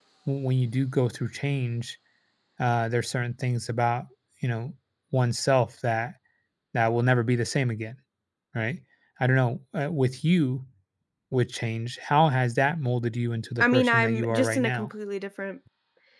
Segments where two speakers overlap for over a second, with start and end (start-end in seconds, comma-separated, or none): 13.6-14.9